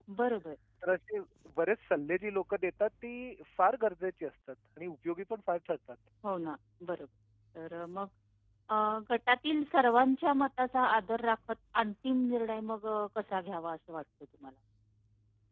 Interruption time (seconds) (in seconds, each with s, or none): none